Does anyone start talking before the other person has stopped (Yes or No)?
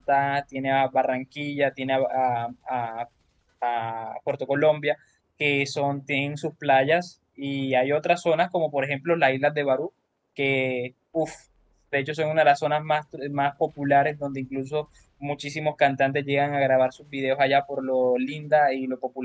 No